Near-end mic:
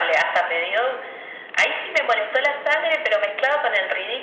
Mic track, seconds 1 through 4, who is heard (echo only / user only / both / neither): echo only